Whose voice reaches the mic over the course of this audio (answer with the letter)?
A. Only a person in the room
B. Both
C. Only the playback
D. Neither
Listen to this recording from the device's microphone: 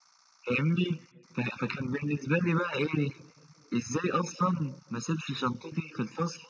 C